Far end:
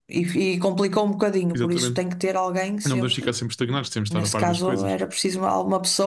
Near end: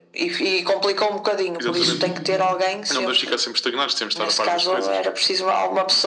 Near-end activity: present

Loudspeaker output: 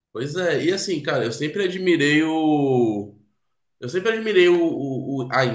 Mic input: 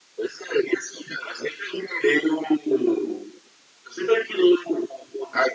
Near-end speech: none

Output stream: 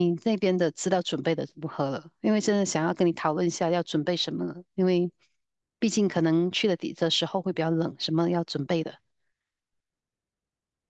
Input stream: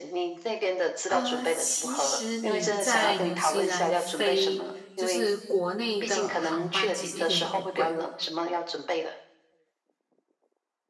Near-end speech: present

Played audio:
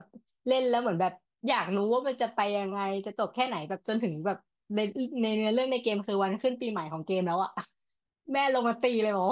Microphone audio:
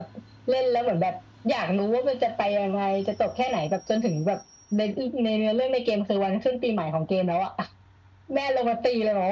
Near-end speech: none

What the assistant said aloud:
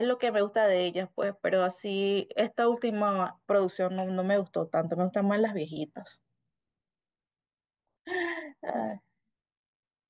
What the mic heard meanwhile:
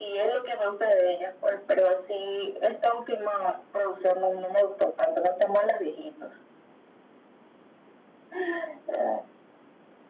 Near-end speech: none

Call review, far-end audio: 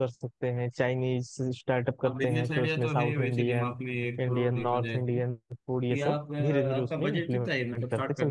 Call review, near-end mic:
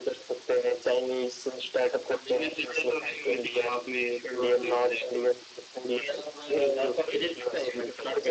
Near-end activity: none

